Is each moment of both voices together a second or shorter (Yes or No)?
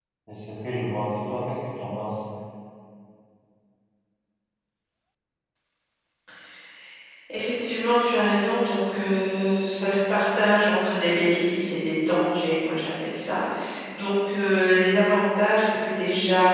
Yes